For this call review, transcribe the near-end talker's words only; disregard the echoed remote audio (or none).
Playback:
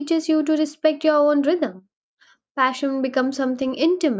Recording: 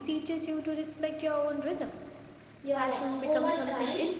yeah over time